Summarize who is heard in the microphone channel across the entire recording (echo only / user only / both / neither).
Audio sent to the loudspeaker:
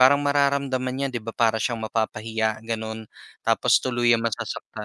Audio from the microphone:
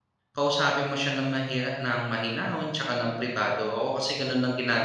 user only